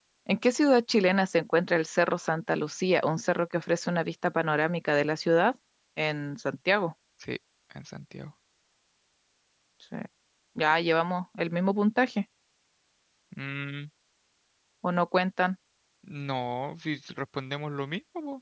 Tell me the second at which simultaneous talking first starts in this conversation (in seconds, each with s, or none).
none